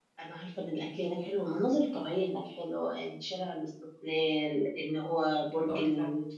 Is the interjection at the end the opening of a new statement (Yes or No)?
No